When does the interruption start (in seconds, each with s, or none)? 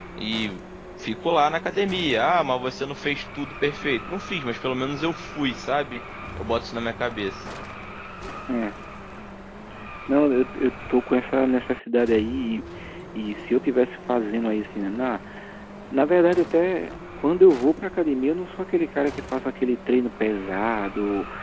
none